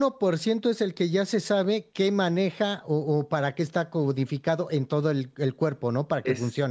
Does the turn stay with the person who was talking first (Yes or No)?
No